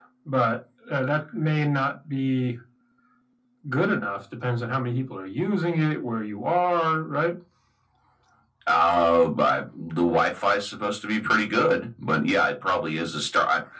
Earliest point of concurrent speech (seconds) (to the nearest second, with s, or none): none